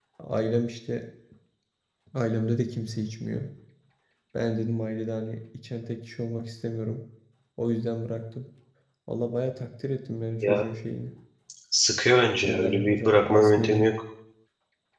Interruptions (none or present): present